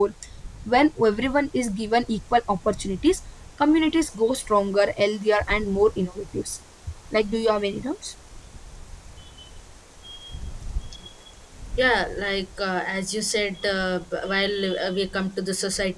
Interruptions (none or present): none